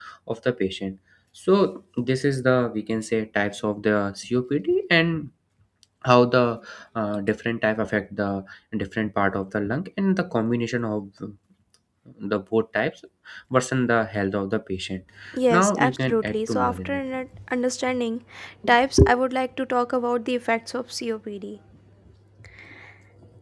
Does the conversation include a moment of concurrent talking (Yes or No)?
Yes